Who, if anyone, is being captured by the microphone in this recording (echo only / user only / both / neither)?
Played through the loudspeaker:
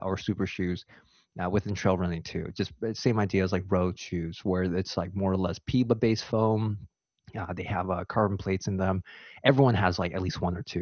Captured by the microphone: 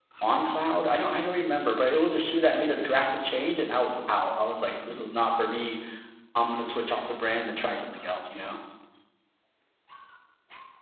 user only